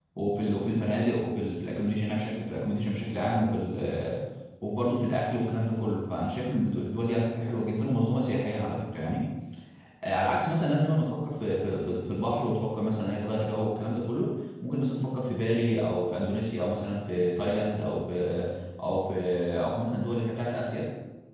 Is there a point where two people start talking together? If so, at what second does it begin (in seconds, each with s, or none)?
none